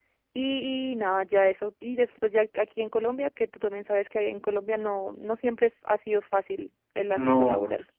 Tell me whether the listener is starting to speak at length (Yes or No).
Yes